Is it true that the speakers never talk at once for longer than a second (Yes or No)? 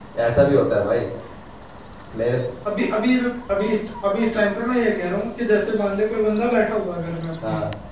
Yes